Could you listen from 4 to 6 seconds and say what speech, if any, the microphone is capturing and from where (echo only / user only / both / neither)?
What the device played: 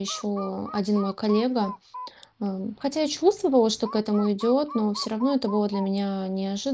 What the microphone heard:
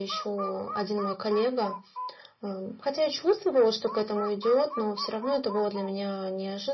echo only